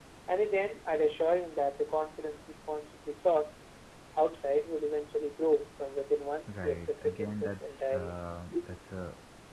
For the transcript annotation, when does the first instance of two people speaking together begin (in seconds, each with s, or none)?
6.5 s